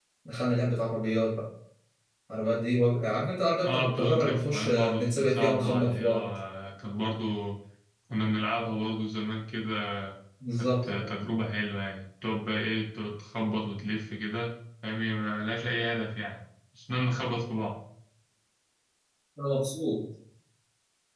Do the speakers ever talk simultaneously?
Yes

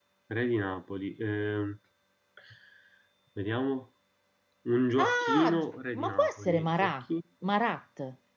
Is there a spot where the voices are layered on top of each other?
Yes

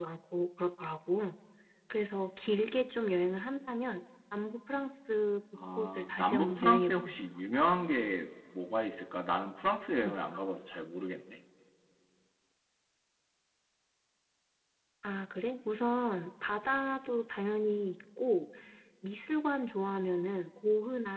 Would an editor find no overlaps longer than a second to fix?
No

